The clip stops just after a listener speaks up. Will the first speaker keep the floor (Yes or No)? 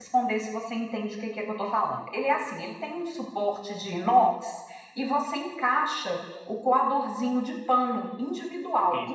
Yes